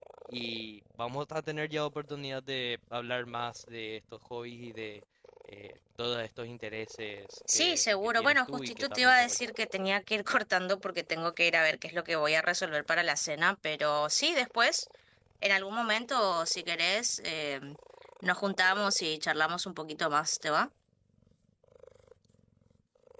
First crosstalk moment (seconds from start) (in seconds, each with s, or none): 7.5 s